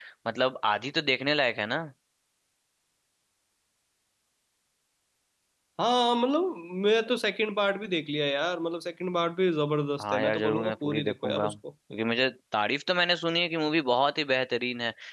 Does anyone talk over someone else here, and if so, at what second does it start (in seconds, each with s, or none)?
10.0 s